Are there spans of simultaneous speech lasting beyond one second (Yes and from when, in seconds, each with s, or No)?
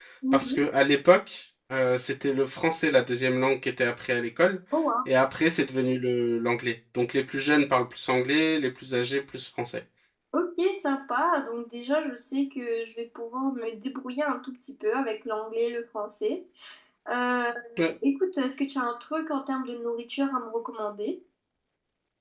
No